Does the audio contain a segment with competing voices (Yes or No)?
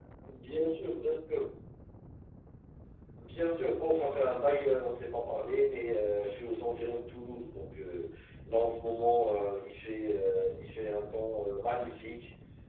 No